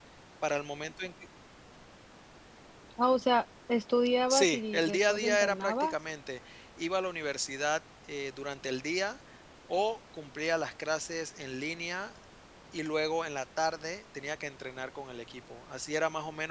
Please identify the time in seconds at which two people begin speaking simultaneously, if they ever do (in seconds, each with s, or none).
4.3 s